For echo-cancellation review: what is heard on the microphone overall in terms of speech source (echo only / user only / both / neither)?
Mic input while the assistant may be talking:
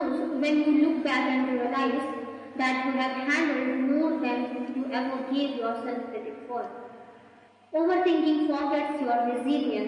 echo only